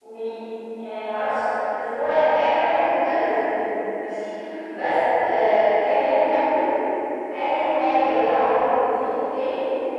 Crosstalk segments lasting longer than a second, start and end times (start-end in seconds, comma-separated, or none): none